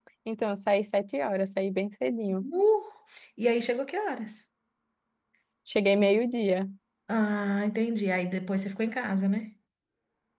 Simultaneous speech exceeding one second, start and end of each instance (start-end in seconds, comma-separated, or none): none